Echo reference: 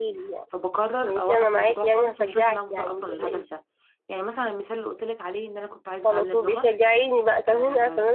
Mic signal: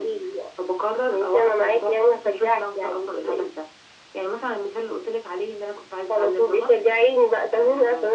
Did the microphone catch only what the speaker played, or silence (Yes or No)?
Yes